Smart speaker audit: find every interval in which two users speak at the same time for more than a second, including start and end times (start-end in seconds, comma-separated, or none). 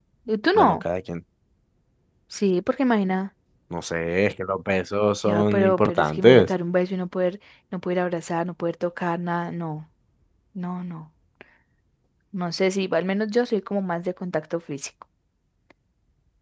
5.2-6.5